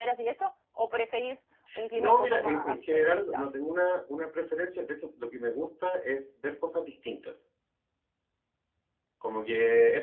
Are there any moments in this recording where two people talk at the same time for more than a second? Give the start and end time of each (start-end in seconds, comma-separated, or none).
2.0-3.5